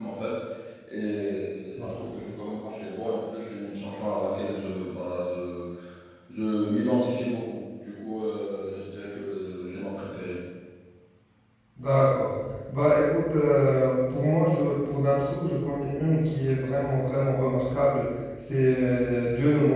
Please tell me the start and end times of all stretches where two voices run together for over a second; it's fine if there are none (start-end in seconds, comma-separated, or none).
none